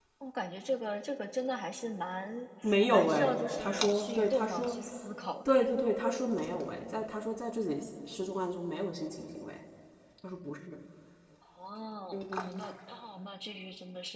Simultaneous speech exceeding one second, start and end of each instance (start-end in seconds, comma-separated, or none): 2.9-4.7